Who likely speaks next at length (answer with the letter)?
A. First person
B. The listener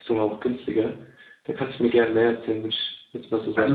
B